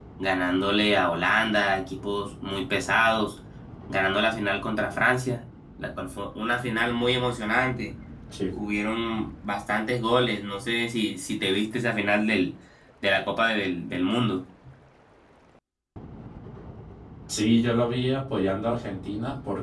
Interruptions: none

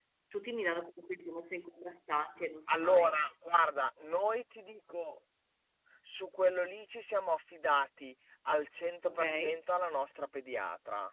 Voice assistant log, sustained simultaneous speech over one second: none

